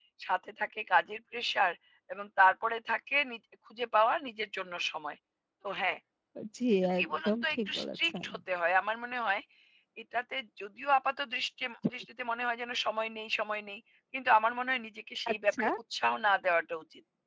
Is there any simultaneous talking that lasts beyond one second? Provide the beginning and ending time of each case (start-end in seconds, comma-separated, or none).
7.0-8.2